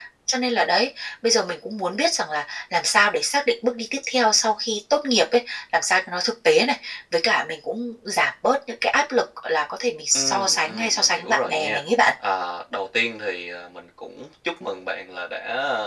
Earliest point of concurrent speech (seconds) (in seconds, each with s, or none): 10.1 s